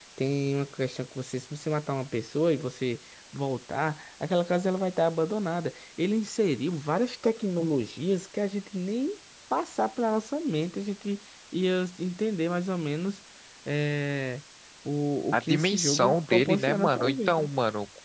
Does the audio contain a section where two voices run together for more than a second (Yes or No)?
Yes